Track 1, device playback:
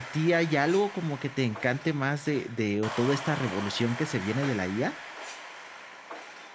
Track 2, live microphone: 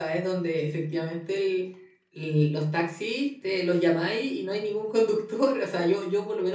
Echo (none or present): none